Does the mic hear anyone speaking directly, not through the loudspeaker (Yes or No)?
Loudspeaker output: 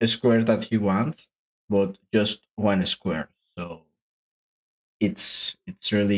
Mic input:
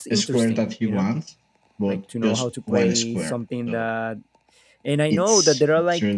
Yes